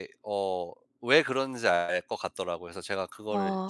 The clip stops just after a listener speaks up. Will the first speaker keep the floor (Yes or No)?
No